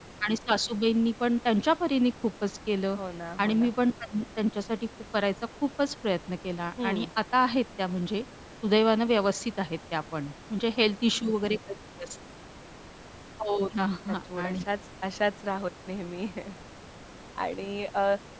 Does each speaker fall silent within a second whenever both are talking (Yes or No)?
Yes